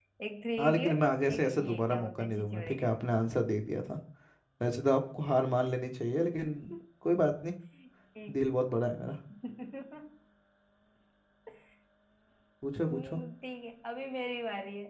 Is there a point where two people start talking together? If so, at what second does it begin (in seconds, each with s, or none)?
0.6 s